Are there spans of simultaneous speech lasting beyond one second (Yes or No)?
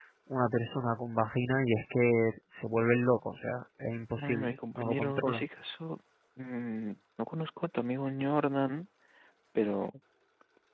Yes